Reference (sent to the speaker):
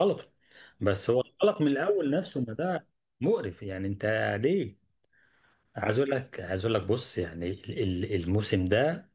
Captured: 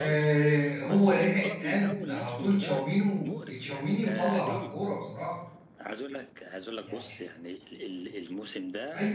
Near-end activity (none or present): present